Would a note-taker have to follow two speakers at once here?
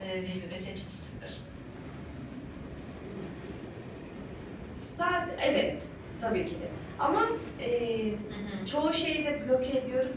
No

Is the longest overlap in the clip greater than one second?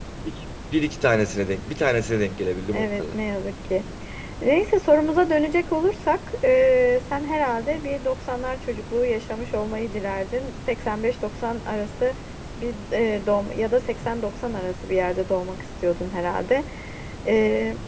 No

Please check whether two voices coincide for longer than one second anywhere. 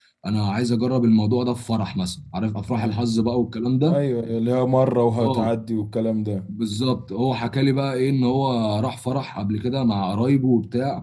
No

